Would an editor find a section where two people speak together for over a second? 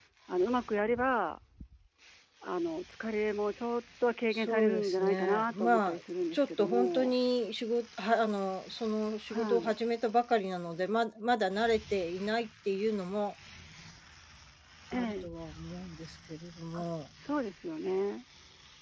Yes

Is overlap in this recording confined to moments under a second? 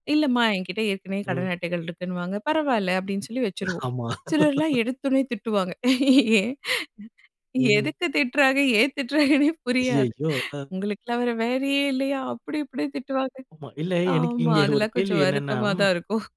No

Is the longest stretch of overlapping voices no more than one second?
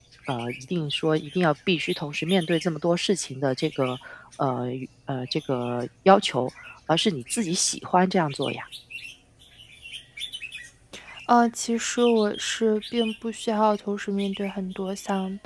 Yes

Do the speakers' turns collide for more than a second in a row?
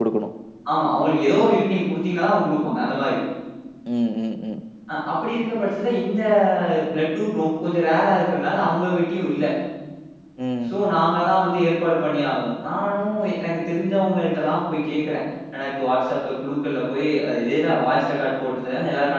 No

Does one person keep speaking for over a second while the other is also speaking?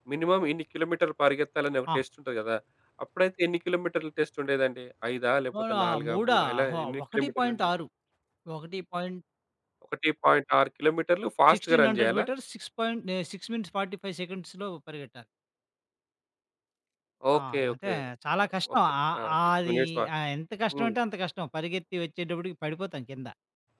Yes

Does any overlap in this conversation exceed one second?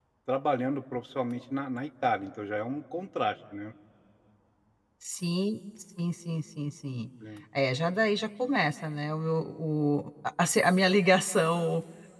No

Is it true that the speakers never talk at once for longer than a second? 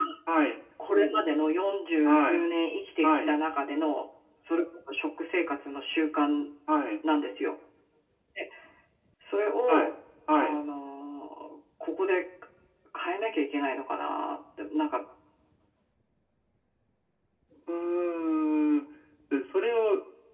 Yes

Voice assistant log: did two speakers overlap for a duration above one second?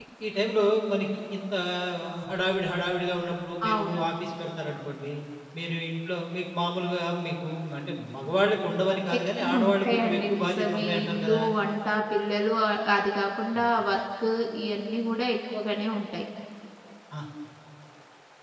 Yes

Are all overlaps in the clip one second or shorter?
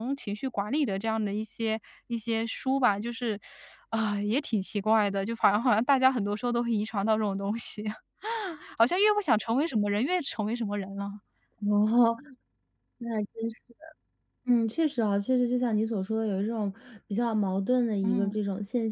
Yes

